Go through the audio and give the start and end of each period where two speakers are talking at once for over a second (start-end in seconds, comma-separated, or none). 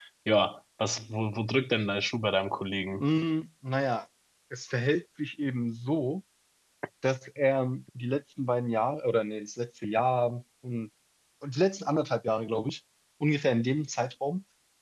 none